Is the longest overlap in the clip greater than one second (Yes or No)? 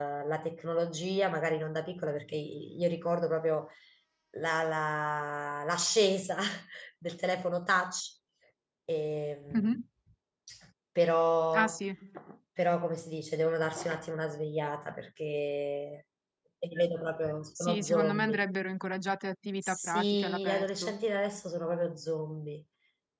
Yes